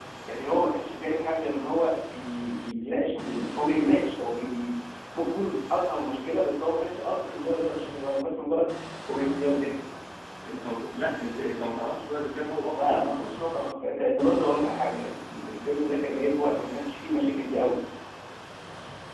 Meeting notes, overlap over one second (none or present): none